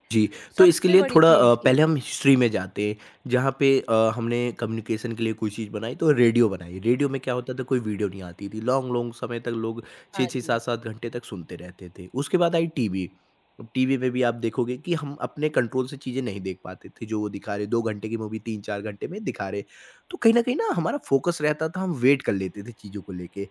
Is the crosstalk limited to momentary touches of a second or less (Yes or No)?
No